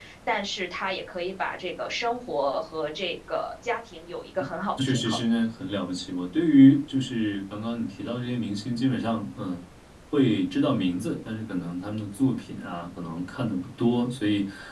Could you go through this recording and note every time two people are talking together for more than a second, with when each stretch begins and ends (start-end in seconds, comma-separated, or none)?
none